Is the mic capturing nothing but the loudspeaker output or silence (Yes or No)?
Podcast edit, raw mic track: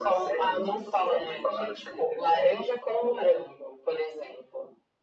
Yes